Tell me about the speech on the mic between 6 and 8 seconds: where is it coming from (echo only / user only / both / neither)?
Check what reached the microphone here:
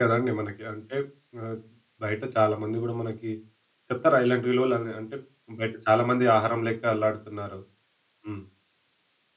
user only